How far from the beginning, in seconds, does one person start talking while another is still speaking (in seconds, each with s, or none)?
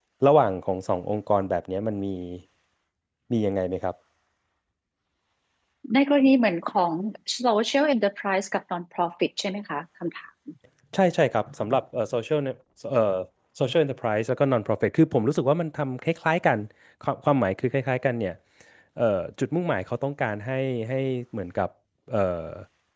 none